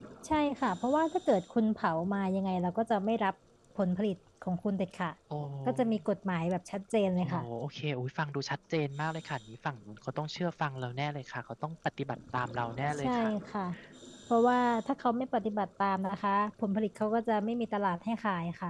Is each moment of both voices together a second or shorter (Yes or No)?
Yes